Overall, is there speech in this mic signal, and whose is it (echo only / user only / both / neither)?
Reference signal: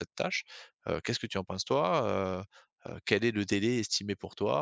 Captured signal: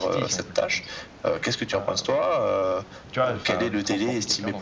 both